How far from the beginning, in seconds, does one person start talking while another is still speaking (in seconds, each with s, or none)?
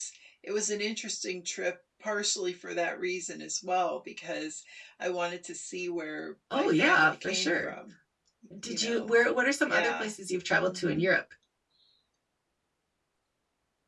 6.5 s